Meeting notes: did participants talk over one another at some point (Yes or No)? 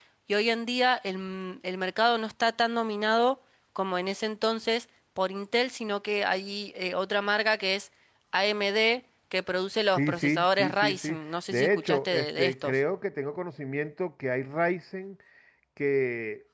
Yes